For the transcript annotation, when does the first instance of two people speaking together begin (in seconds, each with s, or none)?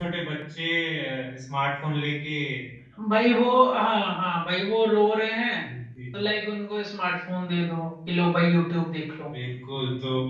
none